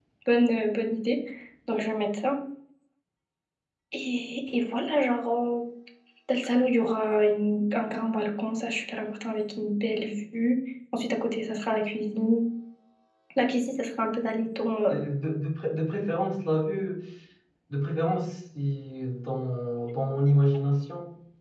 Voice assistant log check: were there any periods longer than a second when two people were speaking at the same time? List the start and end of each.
none

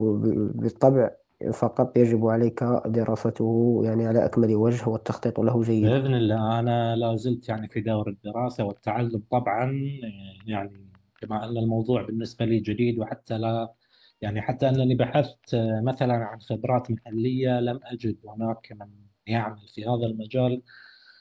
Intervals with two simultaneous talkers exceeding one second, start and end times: none

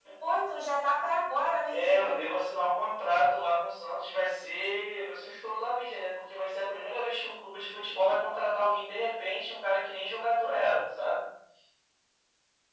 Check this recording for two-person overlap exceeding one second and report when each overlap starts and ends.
none

